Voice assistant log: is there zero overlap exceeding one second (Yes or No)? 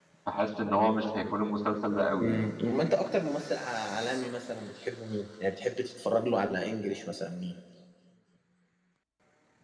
Yes